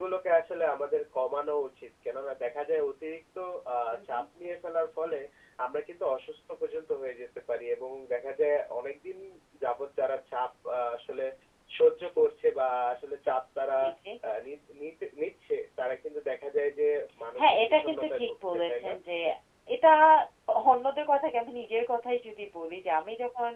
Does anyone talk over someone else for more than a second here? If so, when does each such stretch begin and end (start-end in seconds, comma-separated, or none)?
17.4-18.9